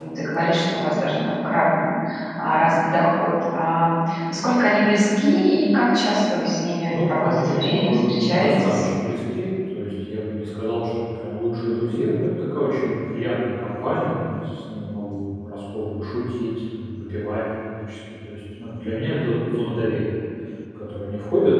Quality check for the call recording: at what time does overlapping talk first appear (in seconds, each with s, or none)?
6.9 s